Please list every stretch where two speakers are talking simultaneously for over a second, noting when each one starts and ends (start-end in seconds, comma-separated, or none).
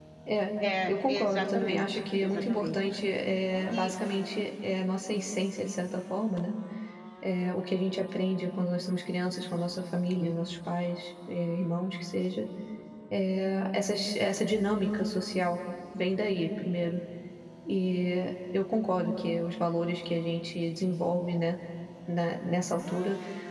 0.9-2.8